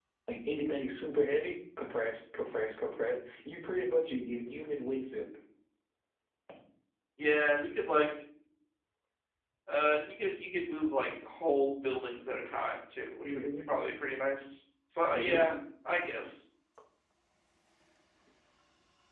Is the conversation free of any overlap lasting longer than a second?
Yes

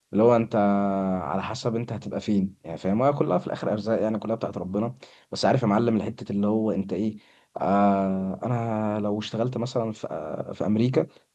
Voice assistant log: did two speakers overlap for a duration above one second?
No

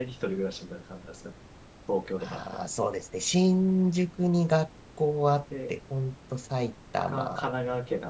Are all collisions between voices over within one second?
Yes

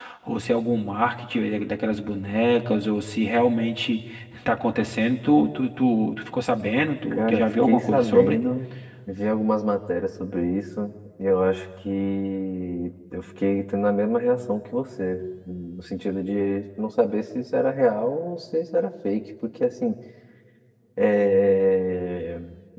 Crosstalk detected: Yes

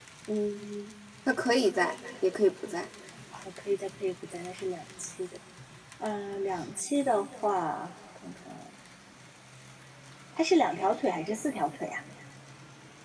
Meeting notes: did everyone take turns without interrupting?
Yes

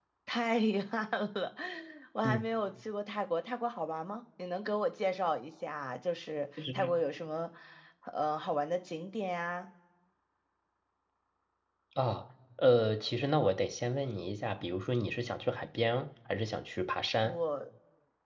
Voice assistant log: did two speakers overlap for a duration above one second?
No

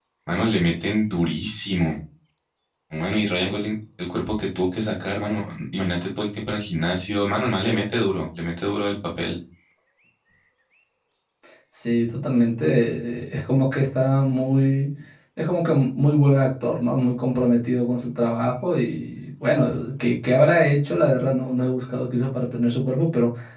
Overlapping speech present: No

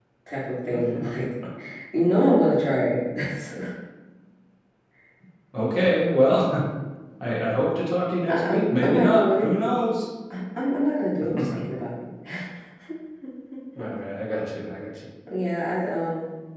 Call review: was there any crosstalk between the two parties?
Yes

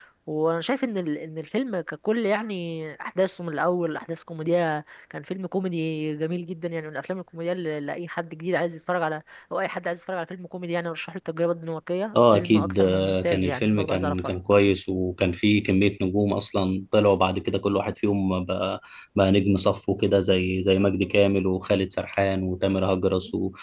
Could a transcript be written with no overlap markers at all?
No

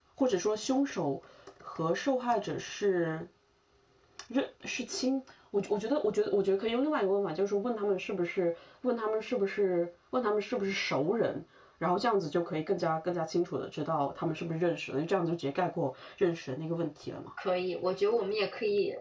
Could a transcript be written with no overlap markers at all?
Yes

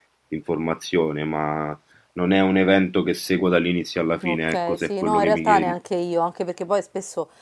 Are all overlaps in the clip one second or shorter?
No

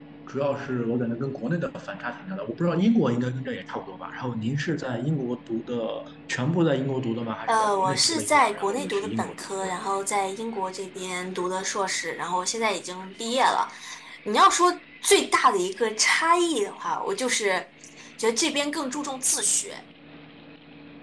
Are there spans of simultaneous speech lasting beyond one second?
Yes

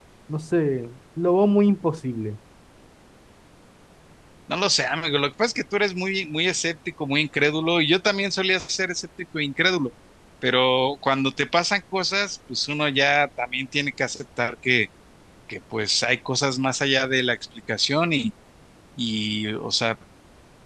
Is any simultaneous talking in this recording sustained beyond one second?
No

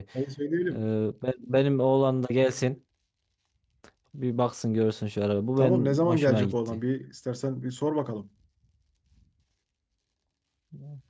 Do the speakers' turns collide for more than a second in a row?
Yes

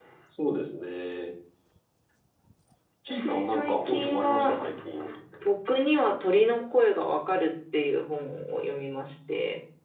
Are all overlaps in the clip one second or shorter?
No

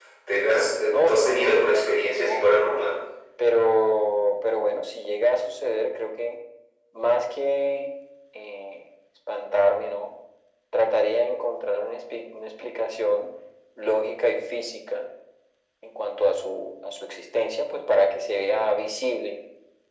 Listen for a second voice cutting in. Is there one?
Yes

